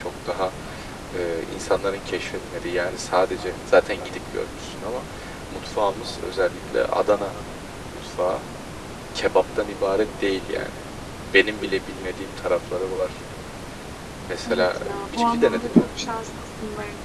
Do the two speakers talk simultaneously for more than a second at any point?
Yes, from 14.4 s

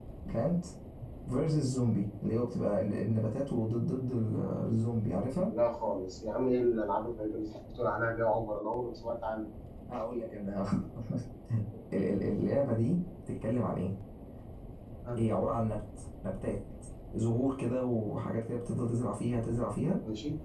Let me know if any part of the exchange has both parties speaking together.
No

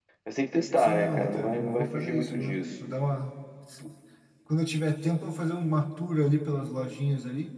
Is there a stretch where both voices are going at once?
Yes, from 0.8 s

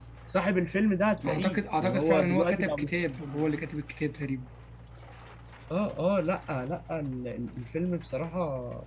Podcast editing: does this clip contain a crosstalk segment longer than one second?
Yes, from 1.3 s

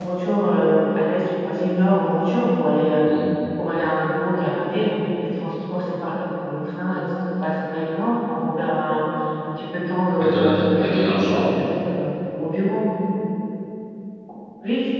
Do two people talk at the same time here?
Yes, from 10.2 s

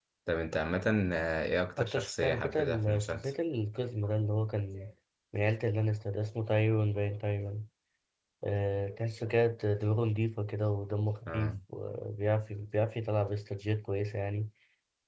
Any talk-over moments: Yes, from 1.8 s

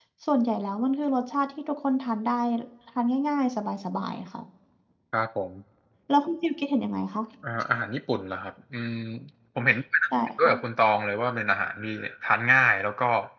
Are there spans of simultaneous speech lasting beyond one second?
No

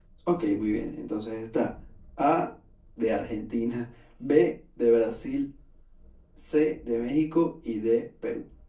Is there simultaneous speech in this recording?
No

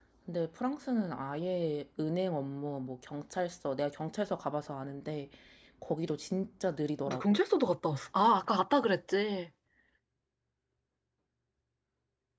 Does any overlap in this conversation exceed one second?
No

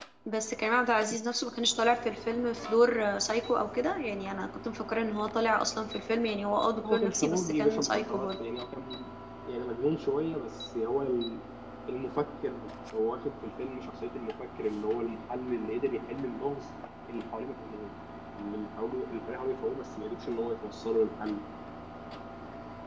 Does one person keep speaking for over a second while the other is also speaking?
Yes, from 6.8 s

